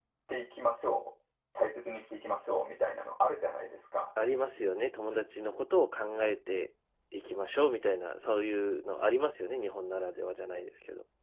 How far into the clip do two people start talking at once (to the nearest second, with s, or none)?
none